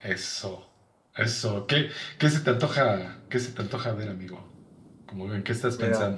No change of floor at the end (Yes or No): No